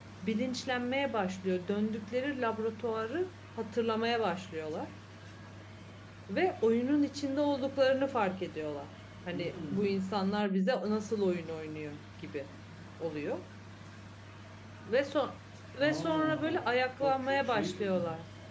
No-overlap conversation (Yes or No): No